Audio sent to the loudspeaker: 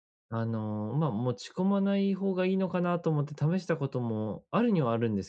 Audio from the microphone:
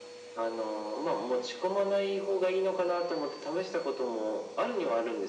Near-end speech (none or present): none